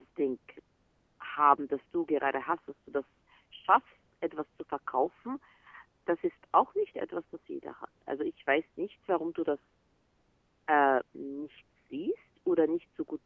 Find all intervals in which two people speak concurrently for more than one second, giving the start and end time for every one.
none

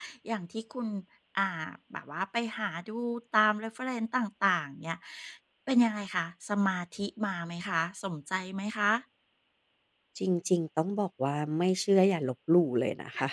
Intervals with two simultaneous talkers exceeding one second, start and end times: none

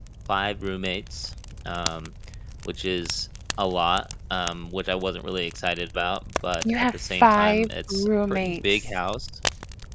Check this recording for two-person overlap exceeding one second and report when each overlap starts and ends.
6.6-8.8

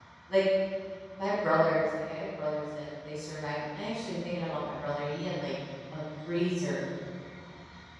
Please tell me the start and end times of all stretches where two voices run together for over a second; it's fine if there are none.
none

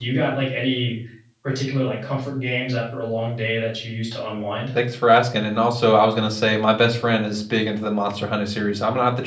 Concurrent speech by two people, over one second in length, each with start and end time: none

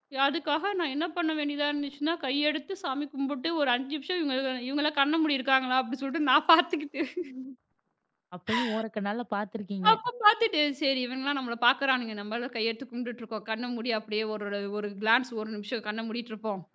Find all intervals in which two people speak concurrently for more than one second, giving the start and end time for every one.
none

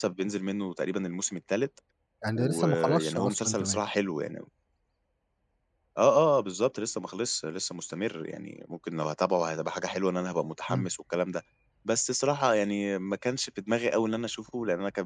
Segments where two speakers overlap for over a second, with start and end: 2.4-3.8

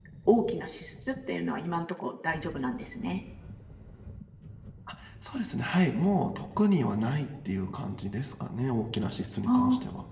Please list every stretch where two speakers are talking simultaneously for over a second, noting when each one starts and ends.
none

